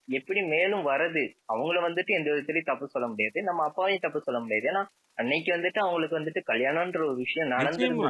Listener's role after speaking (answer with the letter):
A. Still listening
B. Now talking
B